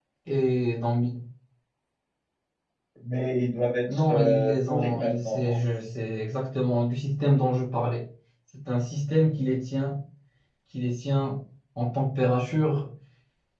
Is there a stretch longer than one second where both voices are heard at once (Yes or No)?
Yes